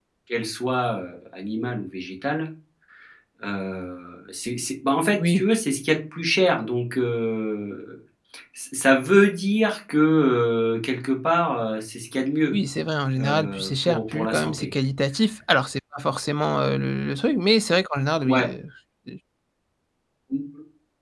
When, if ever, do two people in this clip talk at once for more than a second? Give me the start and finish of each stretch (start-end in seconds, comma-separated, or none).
13.2-14.7